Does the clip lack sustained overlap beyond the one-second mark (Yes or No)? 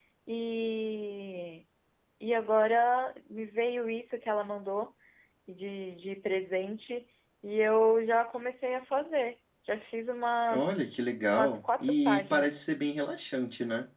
No